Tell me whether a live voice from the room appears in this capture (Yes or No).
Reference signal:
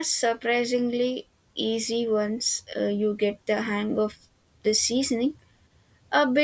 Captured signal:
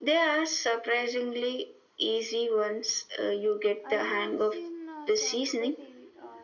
Yes